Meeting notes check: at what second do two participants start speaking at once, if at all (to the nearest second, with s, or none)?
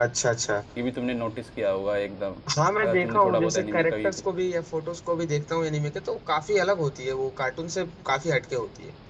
3 s